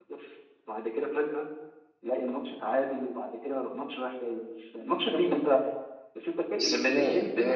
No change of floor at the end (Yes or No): No